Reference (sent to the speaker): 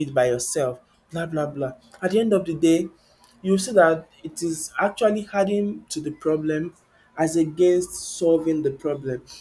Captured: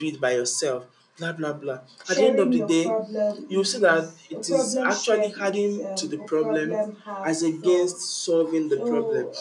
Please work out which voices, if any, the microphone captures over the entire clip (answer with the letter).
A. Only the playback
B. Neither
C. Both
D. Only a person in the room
C